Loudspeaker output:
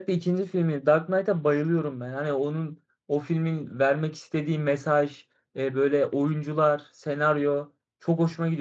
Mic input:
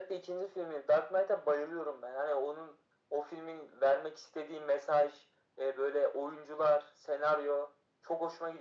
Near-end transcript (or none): none